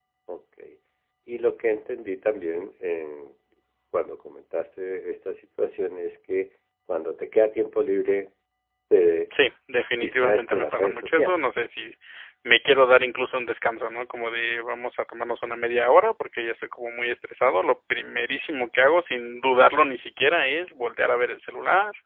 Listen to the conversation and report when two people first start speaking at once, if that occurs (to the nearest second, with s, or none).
10 s